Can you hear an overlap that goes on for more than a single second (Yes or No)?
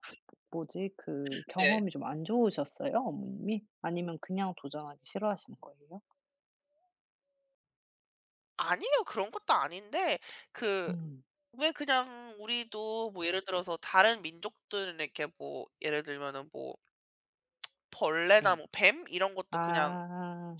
No